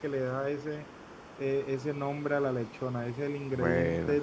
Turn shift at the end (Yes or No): No